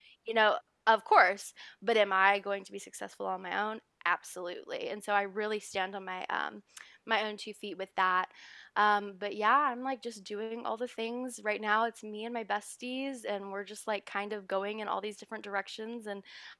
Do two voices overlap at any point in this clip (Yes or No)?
No